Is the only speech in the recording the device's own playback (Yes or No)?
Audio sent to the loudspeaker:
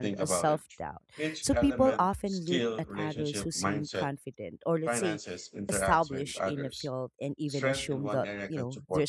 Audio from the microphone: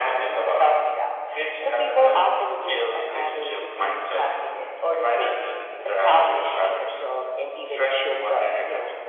Yes